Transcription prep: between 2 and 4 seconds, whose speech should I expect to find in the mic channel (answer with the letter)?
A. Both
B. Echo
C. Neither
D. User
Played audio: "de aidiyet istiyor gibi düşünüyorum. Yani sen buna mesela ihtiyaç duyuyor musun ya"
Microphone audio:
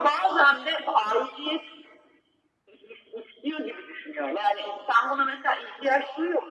B